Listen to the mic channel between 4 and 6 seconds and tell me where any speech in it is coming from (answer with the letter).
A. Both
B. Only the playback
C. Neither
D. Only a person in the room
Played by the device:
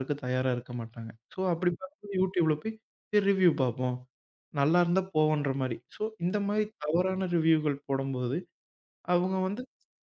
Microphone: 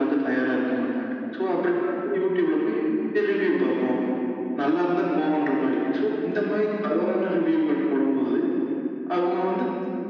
B